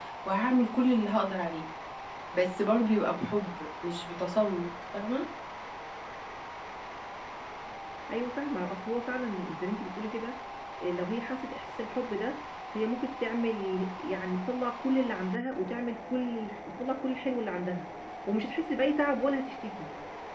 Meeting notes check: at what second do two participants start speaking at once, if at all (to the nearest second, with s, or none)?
none